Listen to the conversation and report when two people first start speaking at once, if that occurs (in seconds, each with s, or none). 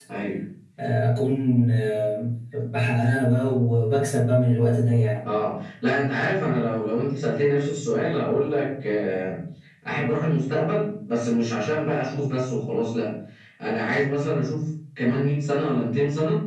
none